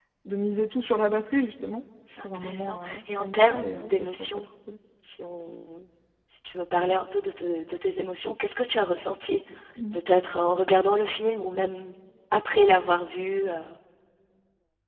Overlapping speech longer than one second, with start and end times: 2.2-4.4

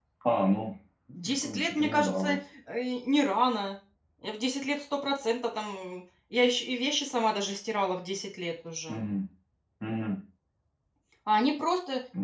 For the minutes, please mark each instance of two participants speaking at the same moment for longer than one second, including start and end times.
1.1-2.4

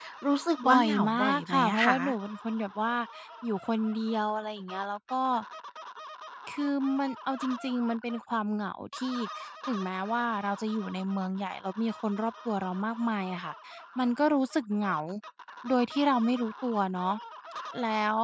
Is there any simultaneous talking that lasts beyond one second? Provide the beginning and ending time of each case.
0.7-1.9

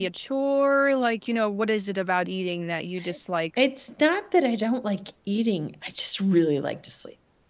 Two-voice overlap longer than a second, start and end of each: none

